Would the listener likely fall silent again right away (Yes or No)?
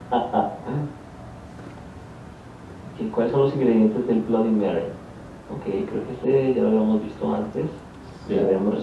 No